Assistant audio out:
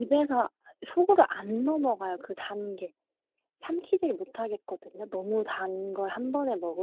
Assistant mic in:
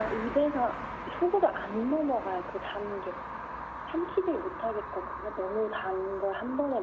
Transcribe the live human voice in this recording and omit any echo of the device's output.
none

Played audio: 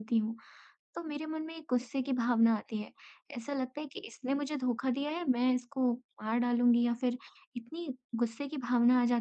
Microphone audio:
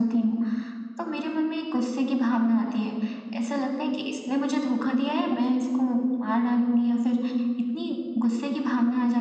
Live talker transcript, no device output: none

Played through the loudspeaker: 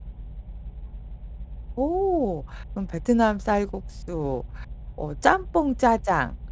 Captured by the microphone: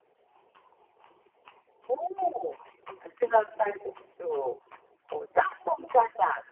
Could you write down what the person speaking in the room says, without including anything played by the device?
none

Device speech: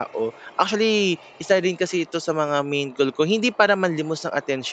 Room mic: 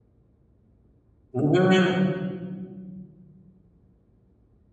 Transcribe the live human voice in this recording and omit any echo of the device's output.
Mhm,

